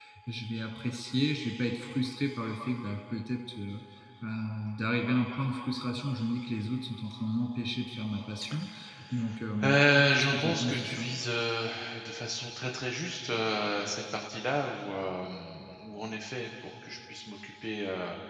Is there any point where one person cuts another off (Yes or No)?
Yes